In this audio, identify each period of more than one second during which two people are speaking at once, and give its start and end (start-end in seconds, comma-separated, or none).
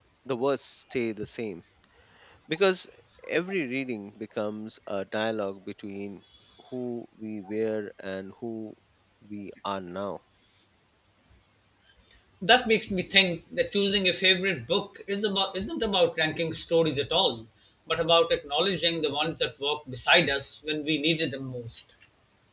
none